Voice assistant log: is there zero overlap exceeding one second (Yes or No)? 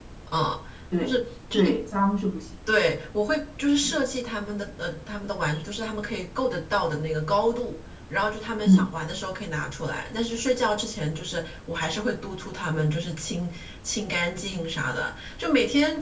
Yes